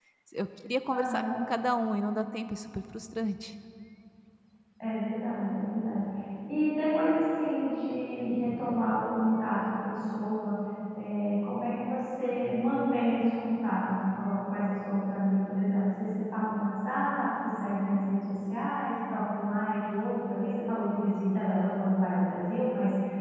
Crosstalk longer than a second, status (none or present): none